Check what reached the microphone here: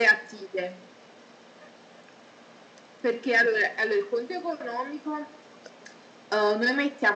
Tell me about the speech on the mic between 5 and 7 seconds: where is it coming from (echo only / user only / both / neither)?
echo only